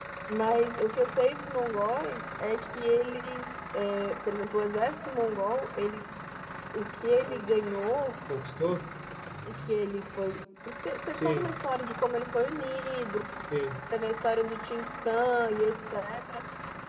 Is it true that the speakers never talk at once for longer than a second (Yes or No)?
Yes